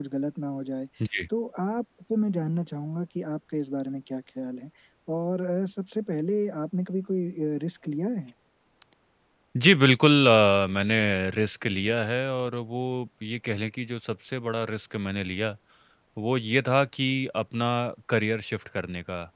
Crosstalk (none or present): none